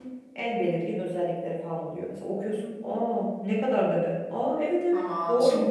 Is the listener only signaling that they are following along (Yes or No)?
No